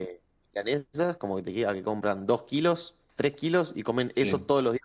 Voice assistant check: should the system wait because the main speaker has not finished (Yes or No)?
Yes